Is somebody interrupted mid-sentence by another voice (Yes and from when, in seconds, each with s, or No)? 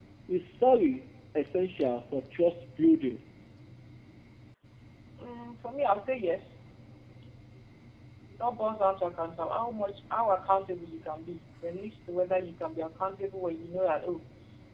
No